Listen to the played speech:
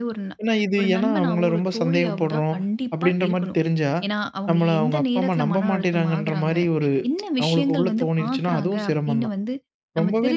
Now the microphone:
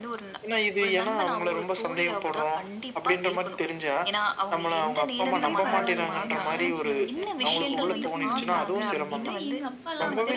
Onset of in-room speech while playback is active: 5.3 s

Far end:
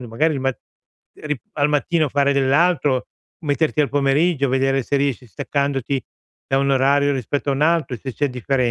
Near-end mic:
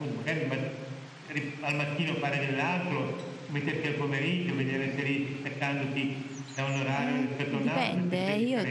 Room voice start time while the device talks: 6.8 s

